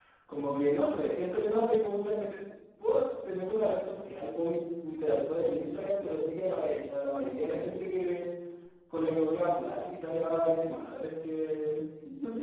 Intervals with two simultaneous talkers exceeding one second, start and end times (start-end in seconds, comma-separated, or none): none